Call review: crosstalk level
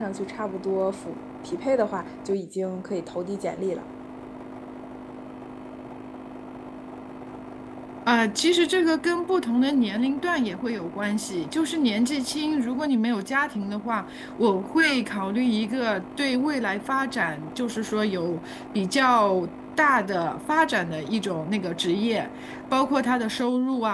none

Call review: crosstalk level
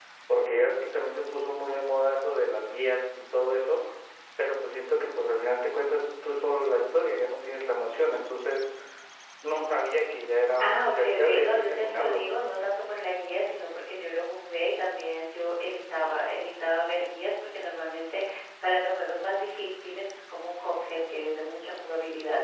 present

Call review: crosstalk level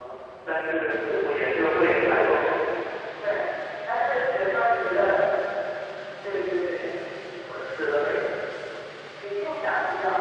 none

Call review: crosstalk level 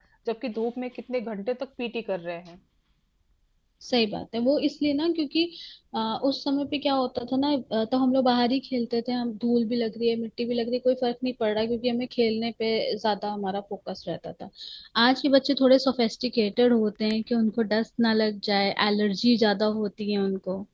none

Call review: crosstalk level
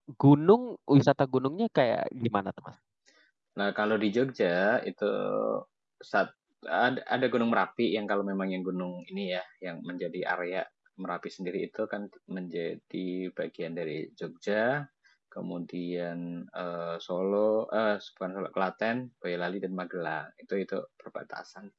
none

